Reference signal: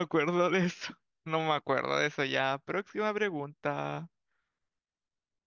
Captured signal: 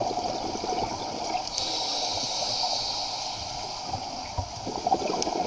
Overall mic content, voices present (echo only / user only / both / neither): neither